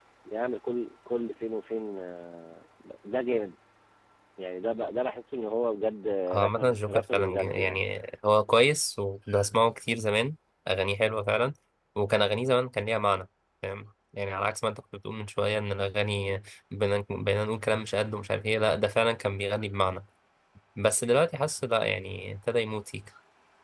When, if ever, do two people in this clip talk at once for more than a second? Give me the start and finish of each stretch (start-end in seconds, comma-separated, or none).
6.3-7.8